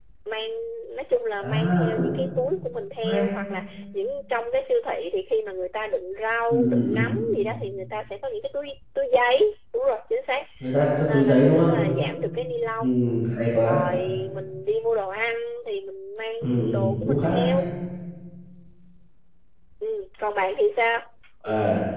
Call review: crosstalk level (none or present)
present